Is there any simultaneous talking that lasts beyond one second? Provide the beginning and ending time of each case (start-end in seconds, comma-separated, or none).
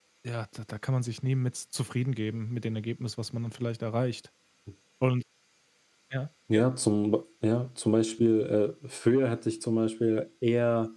none